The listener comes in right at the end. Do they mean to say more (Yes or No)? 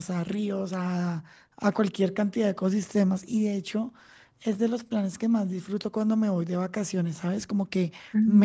No